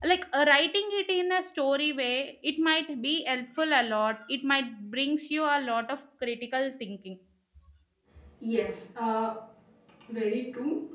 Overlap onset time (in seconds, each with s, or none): none